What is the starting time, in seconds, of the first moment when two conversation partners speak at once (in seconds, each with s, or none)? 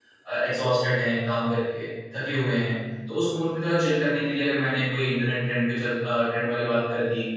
none